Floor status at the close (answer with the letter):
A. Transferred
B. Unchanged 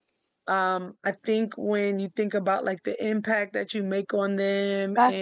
B